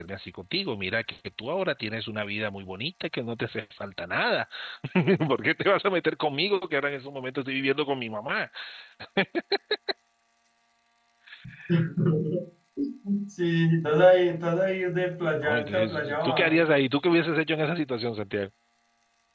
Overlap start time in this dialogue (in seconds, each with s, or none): 15.4 s